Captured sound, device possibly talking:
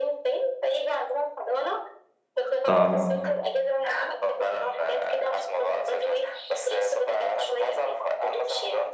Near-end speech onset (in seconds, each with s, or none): 2.7 s